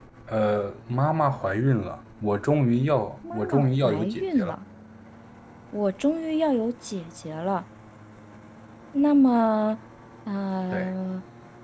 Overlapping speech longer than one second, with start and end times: 3.3-4.5

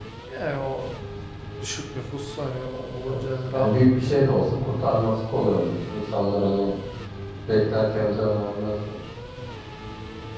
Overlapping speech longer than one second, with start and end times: 2.7-4.1

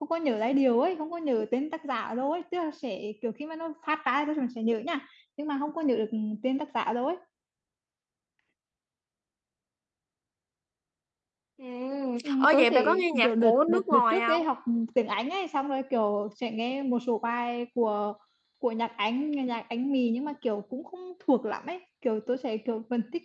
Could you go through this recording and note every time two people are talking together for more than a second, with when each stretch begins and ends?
12.4-14.4

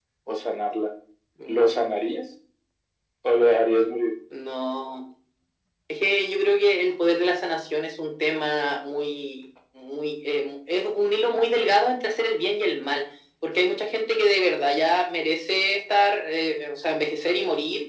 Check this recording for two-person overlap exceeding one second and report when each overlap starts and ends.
none

